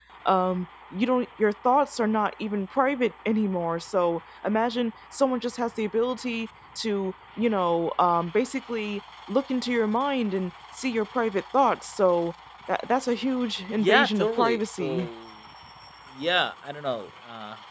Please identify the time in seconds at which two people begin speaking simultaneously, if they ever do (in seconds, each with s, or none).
13.8 s